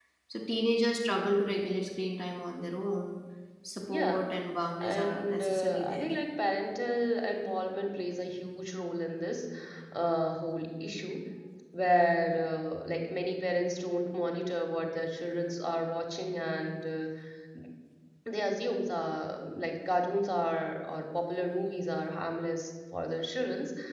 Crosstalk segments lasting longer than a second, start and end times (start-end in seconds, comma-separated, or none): 4.8-6.1